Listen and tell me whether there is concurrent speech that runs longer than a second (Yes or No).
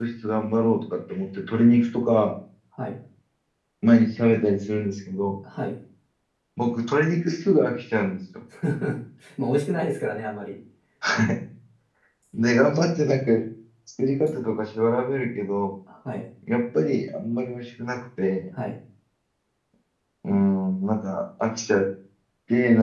No